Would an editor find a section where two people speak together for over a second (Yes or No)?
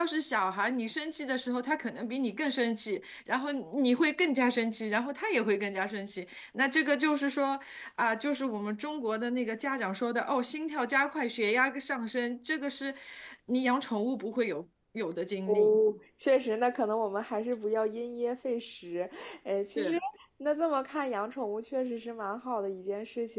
No